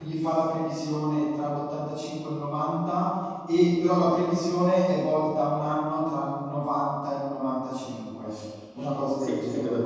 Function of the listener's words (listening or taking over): taking over